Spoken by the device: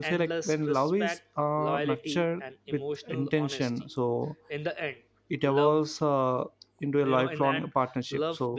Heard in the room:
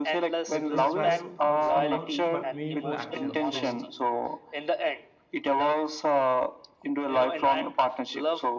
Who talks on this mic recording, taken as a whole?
both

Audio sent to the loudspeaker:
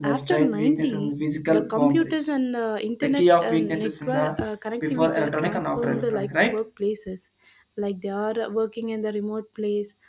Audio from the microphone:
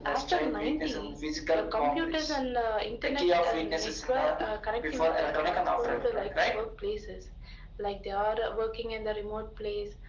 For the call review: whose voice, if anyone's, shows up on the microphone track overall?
echo only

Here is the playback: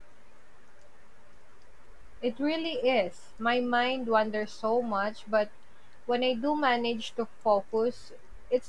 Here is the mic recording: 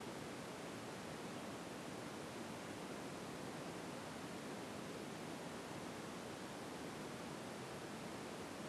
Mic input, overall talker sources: neither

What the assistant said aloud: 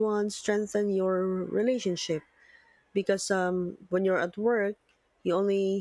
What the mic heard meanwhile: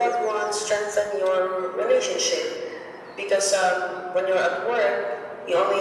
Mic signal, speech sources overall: echo only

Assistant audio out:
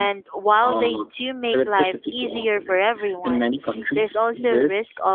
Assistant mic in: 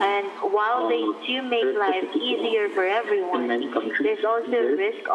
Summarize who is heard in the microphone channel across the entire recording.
echo only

